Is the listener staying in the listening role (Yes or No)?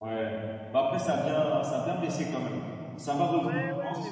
No